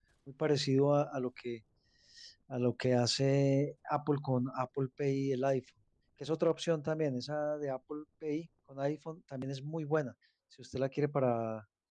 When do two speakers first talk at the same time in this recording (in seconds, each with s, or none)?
none